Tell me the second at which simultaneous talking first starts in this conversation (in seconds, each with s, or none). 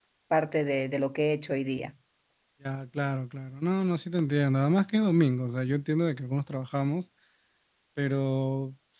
none